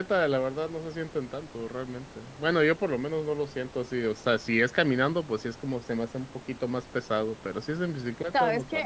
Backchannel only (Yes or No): No